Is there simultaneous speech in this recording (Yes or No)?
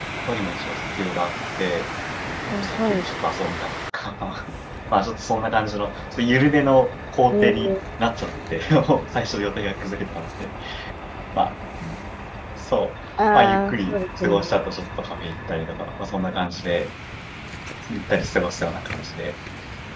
Yes